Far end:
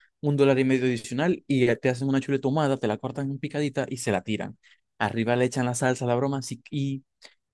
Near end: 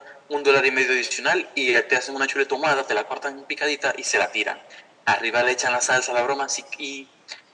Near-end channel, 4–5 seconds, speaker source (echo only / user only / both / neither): echo only